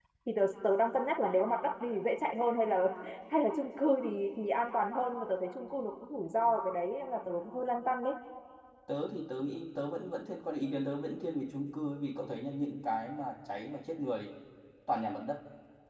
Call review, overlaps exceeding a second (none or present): none